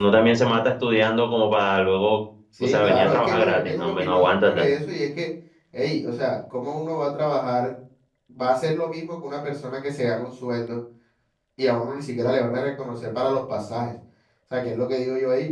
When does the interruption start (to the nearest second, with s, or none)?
3 s